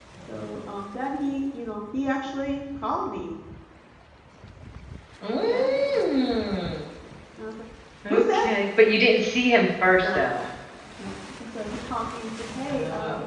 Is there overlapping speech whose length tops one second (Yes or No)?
No